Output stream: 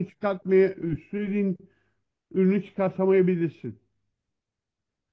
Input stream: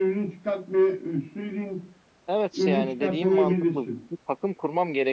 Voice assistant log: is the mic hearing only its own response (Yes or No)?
No